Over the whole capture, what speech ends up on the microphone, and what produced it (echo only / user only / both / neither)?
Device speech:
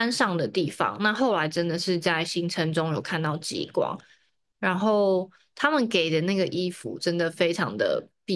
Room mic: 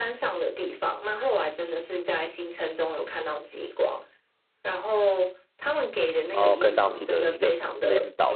both